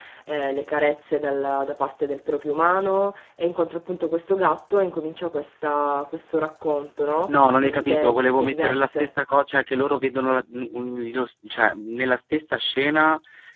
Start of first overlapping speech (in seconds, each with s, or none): 7.6 s